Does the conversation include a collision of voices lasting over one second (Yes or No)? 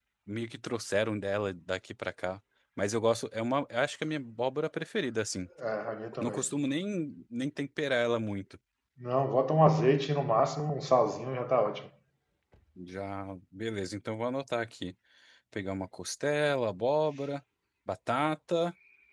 No